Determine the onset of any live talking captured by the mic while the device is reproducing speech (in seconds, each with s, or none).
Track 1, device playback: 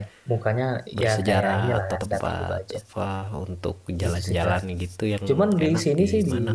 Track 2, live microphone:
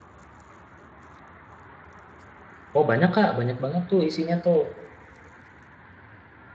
2.7 s